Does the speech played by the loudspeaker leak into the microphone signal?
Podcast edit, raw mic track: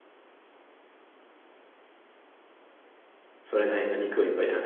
No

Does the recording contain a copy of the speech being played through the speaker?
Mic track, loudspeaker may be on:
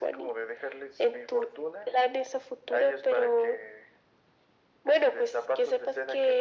Yes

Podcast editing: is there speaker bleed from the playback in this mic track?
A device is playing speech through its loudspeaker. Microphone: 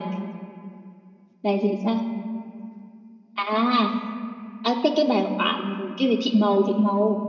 Yes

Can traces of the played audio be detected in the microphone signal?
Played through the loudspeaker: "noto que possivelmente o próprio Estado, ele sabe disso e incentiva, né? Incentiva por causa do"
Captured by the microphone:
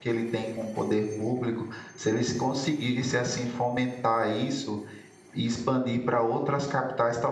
No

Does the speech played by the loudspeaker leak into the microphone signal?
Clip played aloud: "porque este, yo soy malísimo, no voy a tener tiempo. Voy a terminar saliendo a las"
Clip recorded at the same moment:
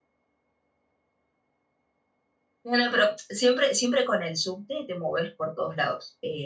No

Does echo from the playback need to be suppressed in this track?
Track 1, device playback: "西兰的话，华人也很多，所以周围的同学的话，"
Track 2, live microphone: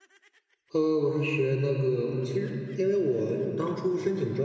No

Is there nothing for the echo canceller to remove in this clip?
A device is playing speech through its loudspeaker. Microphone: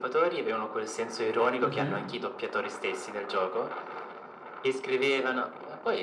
No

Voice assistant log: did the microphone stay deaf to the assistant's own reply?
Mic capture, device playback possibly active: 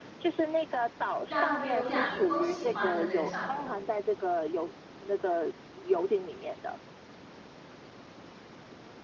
No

